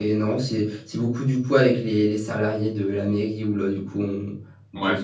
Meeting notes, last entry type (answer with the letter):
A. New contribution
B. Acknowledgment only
B